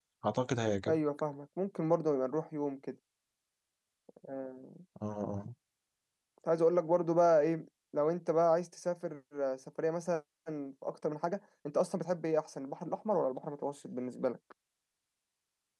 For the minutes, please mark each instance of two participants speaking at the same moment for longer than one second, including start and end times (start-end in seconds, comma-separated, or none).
none